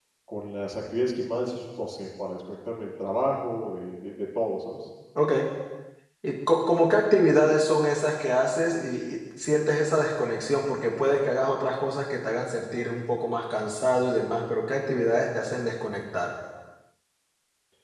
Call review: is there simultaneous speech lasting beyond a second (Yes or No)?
No